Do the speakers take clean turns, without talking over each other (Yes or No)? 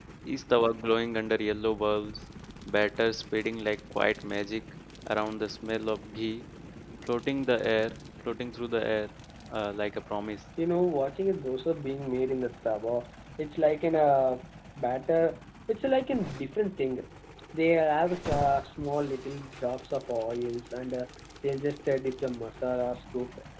Yes